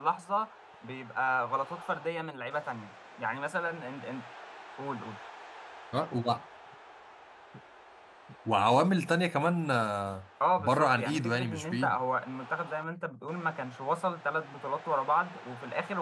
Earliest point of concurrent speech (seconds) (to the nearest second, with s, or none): 10 s